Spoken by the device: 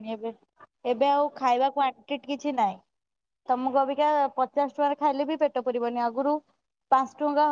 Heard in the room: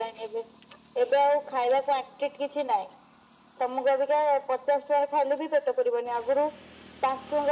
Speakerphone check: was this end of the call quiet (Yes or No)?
Yes